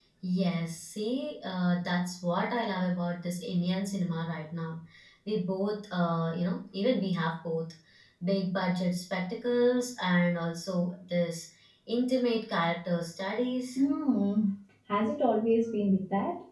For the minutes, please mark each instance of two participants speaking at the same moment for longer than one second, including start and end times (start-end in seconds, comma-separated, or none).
none